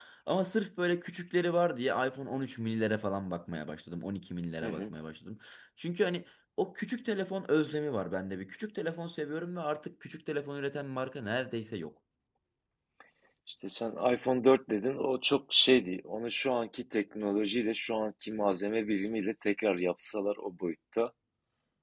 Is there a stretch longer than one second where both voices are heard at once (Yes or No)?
No